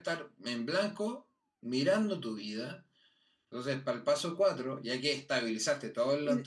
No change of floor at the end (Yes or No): No